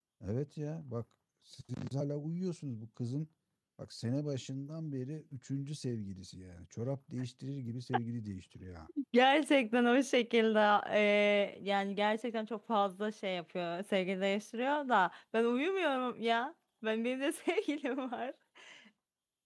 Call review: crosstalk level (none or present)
none